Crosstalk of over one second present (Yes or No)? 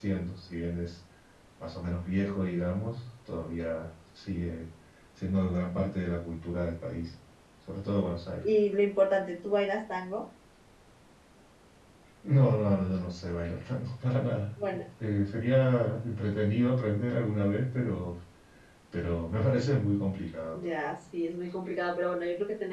No